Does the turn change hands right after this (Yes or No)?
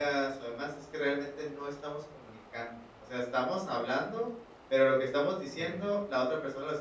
No